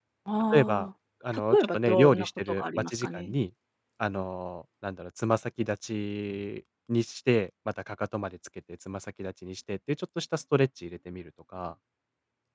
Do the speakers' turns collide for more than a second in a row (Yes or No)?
Yes